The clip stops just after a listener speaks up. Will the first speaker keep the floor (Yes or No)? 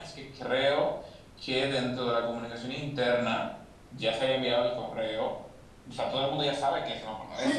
No